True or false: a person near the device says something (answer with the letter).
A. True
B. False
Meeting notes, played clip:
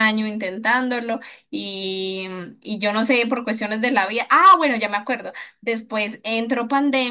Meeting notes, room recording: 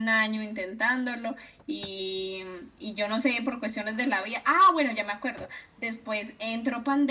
B